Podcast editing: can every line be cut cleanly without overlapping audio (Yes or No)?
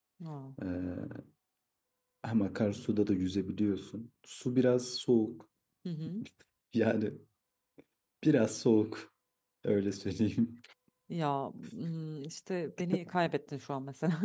Yes